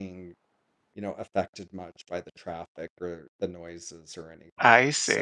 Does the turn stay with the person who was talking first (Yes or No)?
No